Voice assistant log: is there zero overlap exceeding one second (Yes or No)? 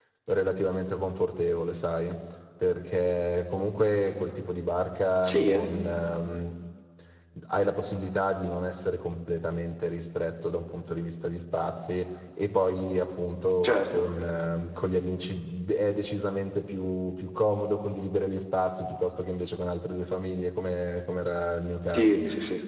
Yes